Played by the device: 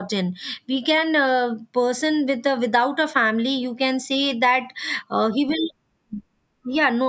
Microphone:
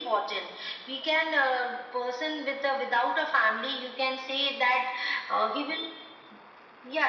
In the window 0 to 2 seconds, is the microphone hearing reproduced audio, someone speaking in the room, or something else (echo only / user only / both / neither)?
echo only